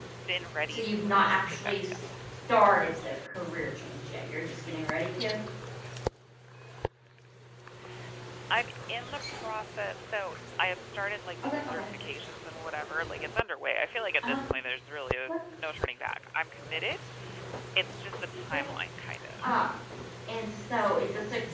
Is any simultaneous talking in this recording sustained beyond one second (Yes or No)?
Yes